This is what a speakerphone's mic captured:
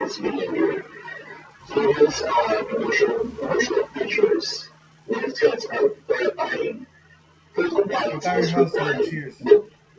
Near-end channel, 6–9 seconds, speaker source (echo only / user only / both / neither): both